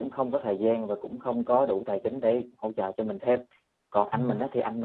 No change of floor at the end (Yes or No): Yes